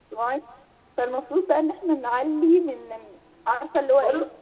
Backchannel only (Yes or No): Yes